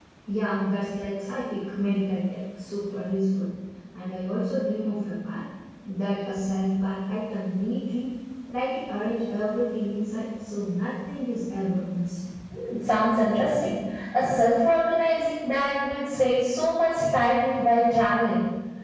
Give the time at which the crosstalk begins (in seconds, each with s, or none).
none